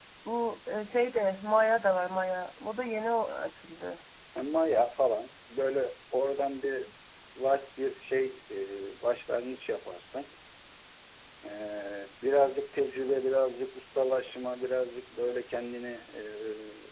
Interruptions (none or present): none